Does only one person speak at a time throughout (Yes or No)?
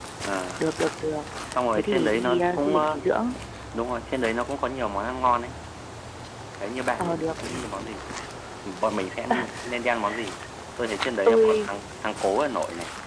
No